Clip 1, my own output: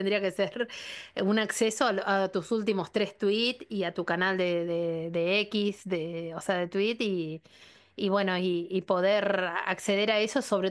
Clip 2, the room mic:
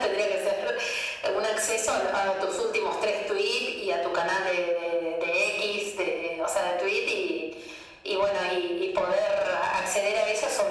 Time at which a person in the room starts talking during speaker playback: none

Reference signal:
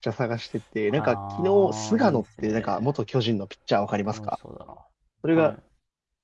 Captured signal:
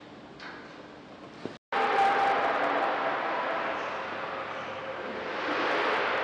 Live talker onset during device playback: none

